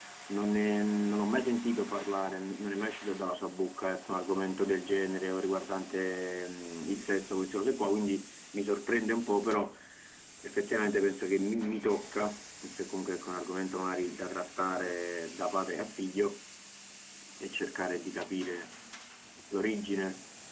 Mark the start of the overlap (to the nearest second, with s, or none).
none